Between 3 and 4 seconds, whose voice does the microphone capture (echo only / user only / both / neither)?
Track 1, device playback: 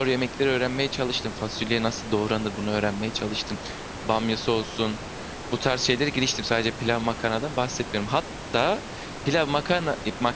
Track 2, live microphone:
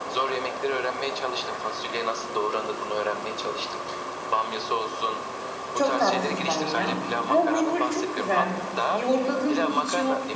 echo only